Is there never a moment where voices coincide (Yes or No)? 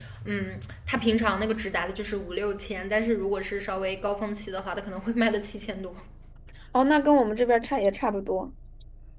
Yes